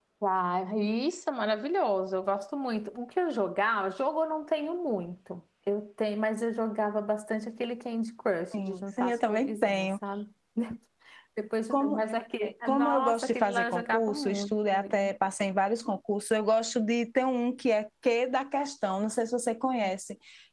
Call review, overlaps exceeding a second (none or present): present